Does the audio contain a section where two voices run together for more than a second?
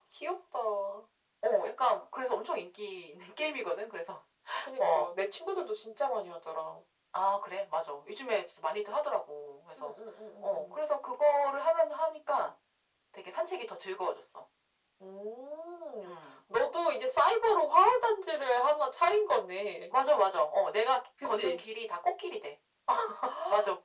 No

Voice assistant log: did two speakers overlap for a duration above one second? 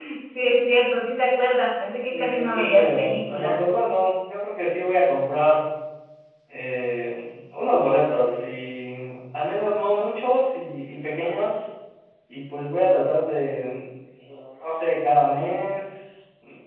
Yes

